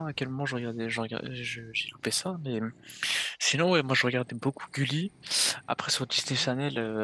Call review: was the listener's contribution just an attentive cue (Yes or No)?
Yes